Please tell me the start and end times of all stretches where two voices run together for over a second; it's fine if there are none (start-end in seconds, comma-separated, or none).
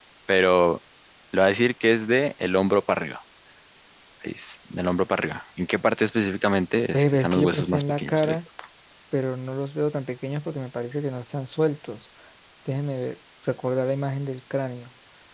6.9-8.4